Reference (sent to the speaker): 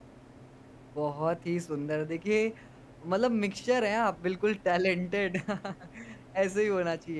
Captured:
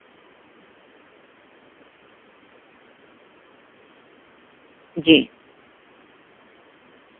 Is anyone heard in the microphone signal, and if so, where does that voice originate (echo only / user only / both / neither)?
user only